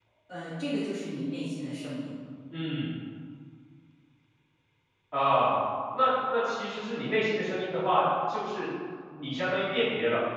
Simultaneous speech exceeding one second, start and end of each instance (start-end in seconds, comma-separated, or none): none